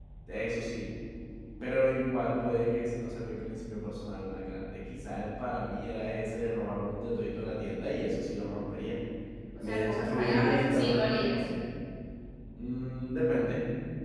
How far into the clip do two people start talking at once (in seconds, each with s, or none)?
9.6 s